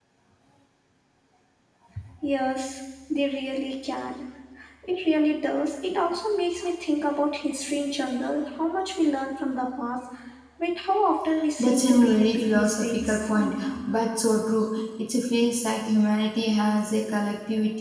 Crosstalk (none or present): present